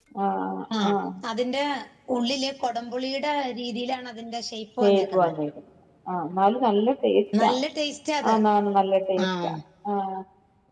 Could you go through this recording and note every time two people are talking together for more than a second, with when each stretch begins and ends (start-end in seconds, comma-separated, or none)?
none